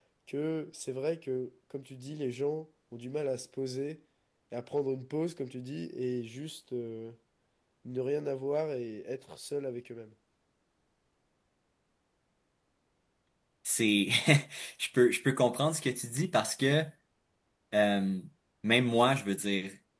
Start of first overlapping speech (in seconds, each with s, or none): none